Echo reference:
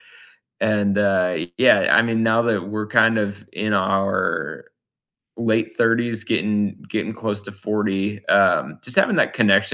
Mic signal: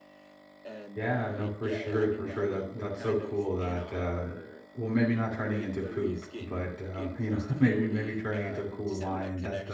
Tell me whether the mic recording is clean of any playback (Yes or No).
No